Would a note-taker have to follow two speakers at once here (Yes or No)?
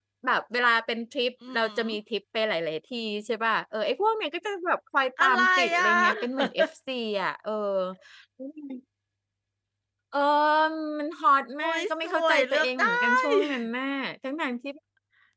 Yes